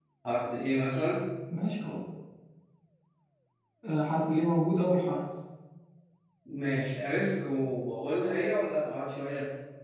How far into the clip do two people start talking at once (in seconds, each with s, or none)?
none